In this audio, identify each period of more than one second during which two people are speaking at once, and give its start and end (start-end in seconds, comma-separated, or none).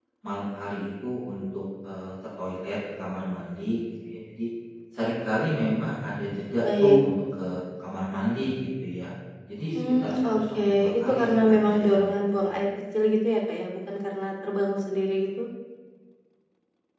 9.8-12.2